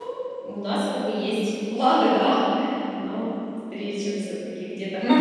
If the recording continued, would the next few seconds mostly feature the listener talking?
Yes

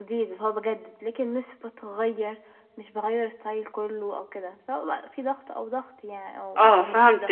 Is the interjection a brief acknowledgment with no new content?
No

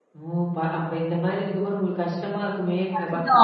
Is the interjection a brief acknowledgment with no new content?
No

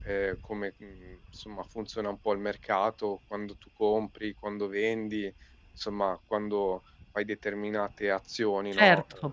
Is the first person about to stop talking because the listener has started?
Yes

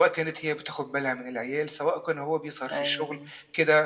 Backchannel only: Yes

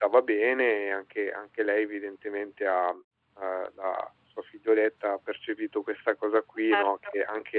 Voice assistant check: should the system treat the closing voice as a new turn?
No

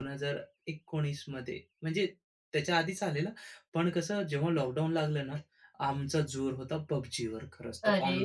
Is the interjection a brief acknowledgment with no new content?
No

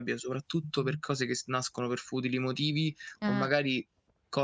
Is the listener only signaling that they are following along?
Yes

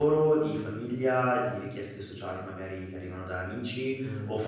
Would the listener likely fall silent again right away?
Yes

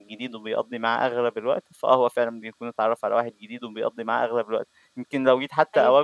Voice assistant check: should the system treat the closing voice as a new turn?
No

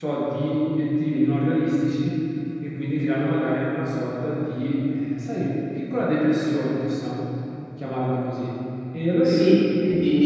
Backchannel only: No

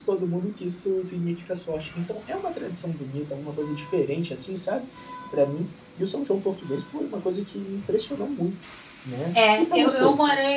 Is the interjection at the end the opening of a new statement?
Yes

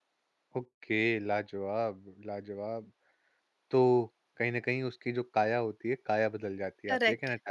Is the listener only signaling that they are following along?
No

